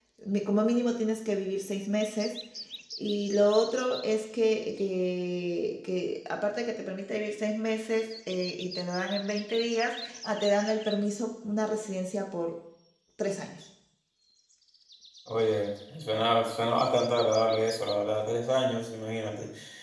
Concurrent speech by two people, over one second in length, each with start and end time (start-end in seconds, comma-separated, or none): none